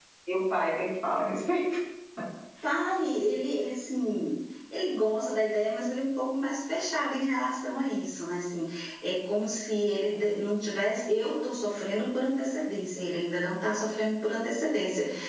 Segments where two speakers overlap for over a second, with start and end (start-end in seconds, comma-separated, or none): none